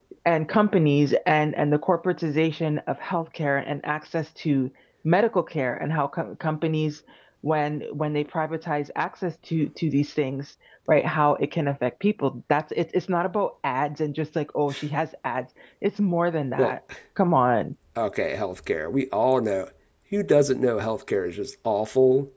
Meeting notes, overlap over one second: none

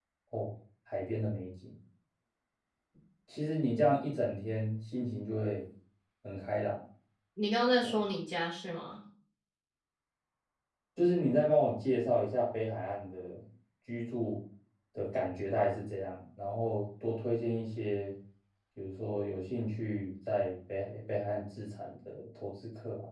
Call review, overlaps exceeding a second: none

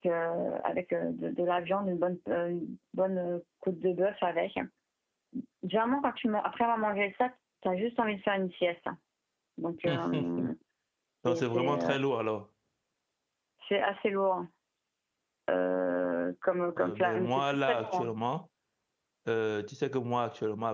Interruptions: present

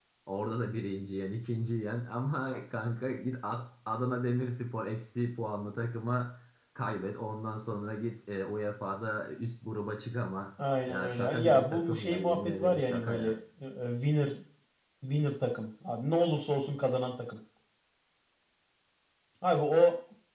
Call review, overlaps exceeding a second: present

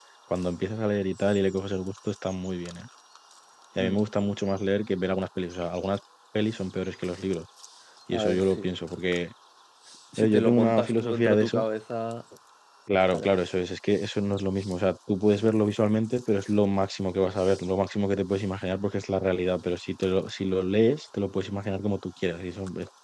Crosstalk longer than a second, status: present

